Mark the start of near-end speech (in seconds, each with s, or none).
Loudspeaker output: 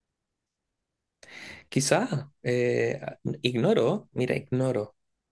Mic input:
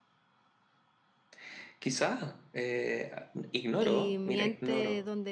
3.8 s